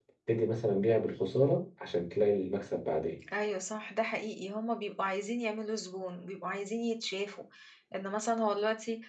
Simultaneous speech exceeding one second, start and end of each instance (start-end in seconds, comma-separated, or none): none